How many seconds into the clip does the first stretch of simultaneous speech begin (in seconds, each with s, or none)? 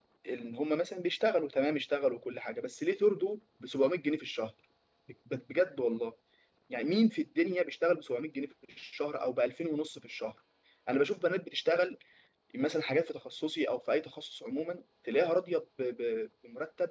none